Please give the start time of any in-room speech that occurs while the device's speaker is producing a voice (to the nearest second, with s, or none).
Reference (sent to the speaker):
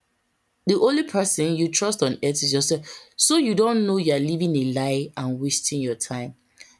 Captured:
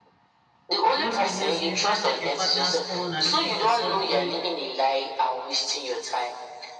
1 s